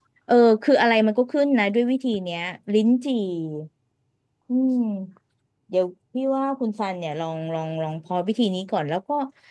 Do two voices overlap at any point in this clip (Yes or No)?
No